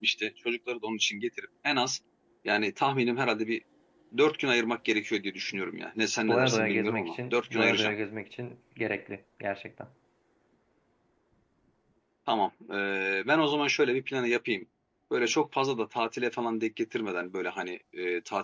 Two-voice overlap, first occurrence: 6.3 s

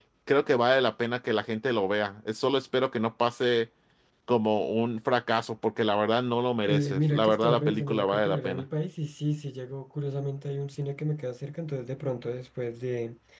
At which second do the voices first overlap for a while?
6.7 s

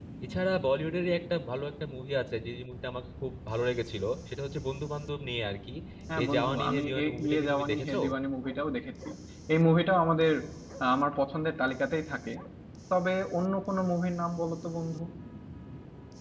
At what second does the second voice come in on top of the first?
6.2 s

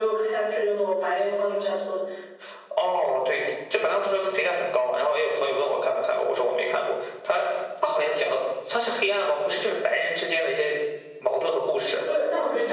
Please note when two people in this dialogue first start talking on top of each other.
none

